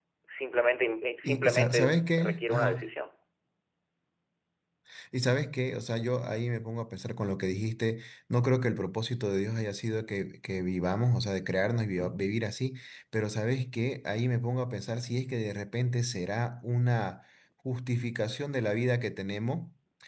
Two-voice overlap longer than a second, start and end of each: 1.2-2.9

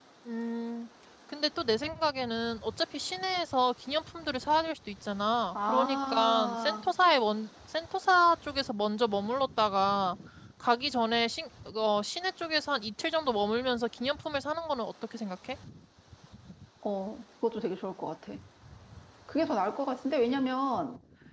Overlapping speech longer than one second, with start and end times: 5.6-6.9

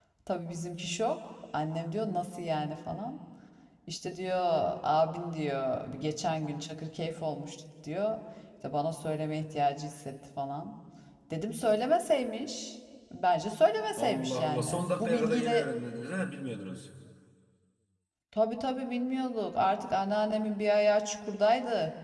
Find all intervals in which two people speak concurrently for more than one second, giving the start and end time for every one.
14.0-15.7

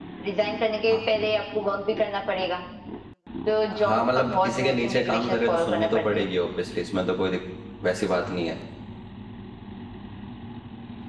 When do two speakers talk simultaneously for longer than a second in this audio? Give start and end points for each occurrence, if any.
3.9-6.3

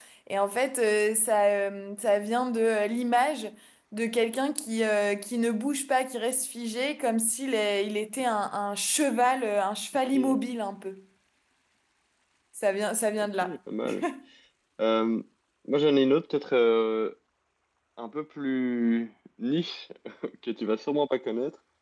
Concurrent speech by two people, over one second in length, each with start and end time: none

